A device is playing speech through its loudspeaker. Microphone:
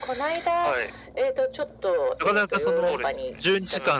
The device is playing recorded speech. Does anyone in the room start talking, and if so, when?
2 s

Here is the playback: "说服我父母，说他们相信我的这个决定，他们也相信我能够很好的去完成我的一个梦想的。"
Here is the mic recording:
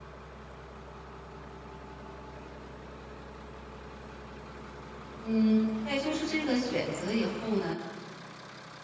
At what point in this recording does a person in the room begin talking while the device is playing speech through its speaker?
5 s

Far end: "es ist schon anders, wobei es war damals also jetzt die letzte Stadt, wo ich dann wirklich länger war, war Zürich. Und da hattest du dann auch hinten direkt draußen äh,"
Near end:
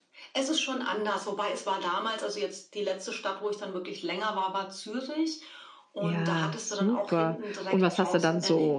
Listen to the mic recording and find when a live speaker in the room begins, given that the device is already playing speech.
6 s

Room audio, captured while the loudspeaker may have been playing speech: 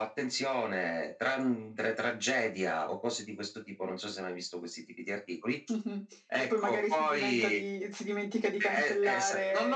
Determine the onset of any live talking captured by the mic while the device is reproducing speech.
none

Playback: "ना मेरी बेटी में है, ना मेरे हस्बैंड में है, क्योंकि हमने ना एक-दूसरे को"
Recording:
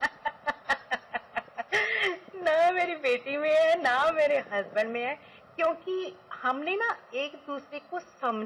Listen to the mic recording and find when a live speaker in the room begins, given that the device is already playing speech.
none

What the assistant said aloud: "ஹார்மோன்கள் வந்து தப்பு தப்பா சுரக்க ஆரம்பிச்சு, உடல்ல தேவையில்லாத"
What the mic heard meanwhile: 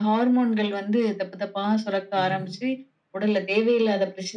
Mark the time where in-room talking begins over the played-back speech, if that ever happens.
2 s

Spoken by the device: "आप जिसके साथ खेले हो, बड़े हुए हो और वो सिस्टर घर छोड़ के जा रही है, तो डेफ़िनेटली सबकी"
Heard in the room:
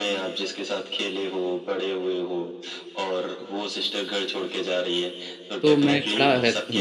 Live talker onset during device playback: 6 s

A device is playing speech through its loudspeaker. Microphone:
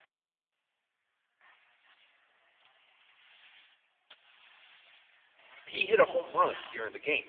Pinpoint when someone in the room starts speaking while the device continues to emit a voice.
6 s

